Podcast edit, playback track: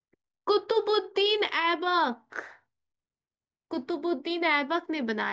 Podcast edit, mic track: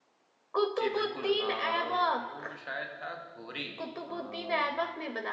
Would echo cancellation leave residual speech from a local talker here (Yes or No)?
Yes